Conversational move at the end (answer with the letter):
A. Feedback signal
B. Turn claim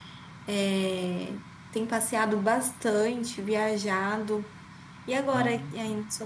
A